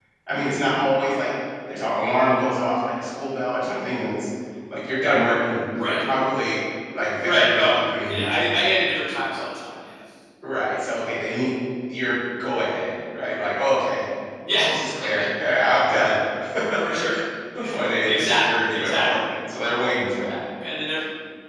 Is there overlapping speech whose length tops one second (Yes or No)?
Yes